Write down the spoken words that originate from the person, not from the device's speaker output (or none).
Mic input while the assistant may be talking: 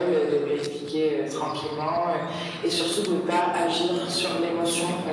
none